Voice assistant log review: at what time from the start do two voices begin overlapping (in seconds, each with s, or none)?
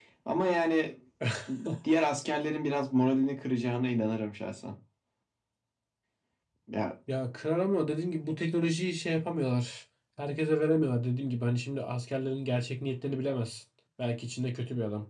none